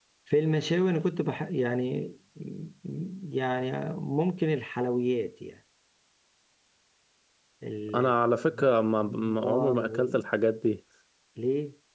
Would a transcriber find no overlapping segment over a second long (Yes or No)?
No